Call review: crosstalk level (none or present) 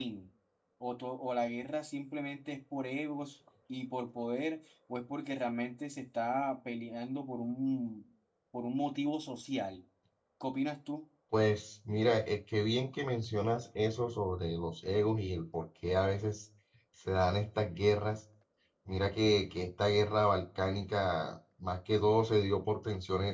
none